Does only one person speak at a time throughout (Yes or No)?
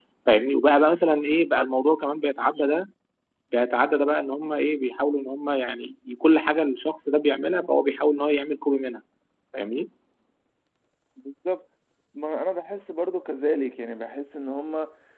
Yes